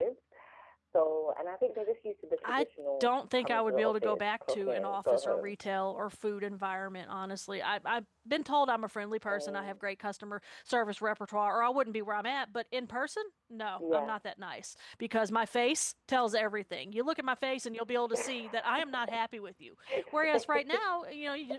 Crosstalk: present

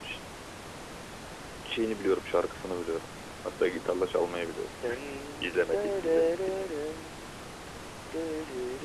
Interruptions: present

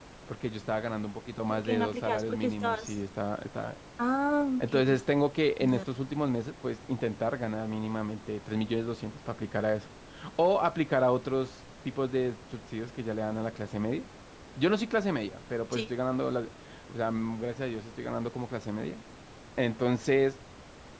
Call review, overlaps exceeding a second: present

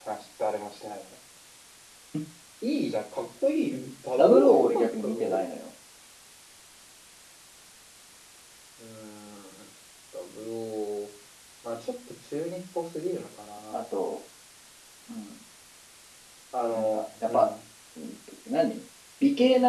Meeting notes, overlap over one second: present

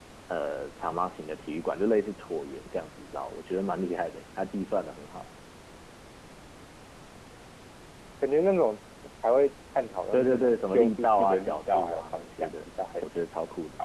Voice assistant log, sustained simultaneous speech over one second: present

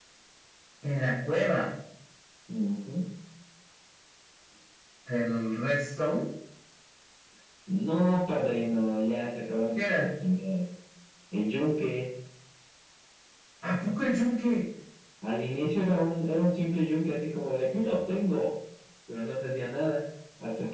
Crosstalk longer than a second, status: none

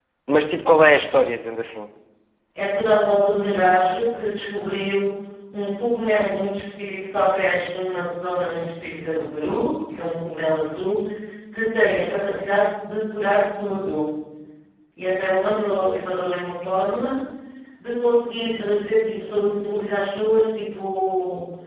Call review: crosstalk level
none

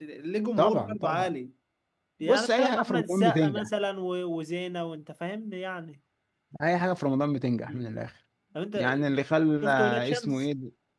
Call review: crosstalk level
present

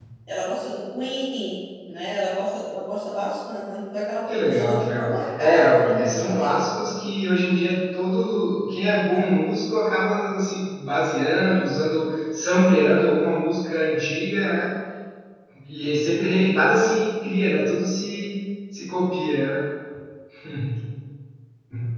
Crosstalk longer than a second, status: present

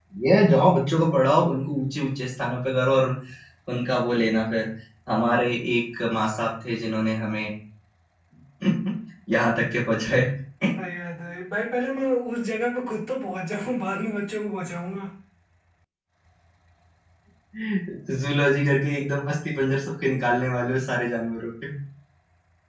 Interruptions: none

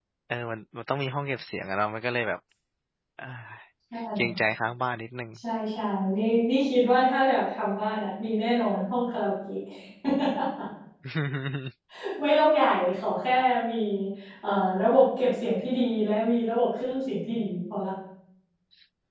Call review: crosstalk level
none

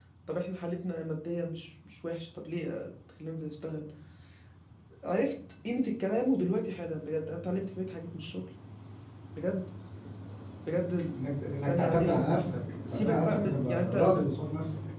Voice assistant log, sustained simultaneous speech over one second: present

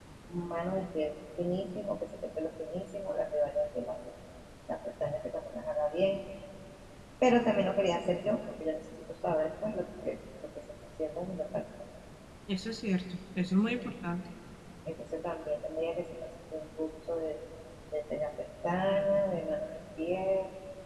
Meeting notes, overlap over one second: none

